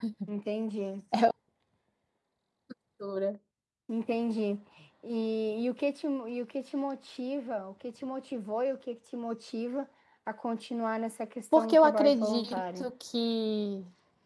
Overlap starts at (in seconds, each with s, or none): 11.5 s